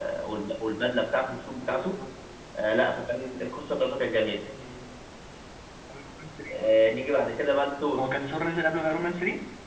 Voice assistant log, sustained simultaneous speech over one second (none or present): none